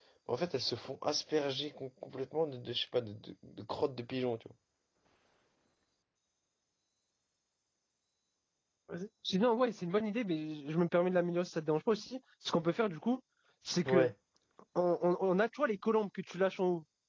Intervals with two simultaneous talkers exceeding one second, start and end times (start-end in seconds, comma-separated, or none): none